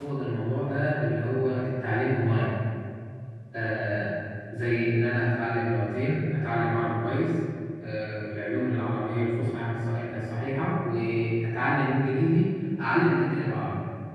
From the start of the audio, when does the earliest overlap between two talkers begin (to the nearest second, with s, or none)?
none